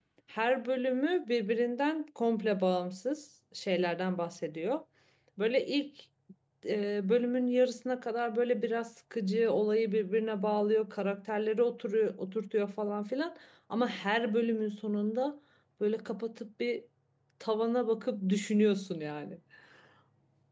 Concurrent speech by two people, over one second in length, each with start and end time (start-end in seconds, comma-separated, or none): none